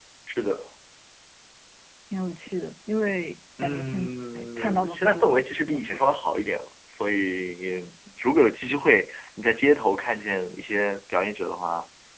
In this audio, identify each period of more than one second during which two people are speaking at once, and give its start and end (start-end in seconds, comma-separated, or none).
3.6-6.0